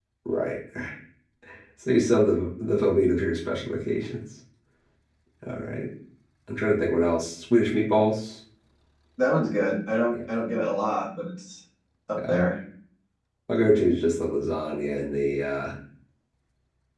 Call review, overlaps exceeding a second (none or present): none